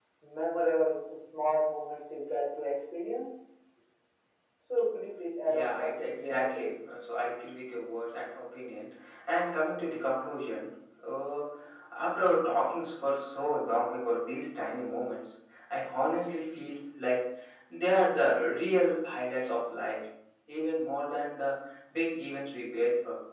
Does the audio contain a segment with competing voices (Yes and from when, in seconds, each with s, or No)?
Yes, from 5.4 s